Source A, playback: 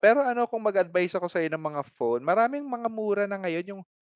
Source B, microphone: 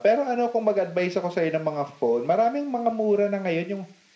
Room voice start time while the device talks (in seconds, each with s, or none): none